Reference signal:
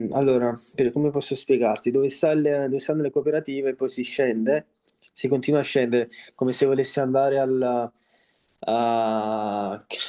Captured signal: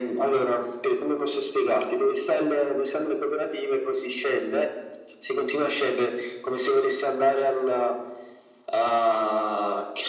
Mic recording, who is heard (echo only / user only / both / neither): echo only